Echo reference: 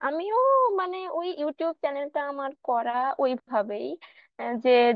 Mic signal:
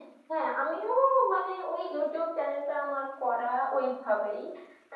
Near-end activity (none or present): none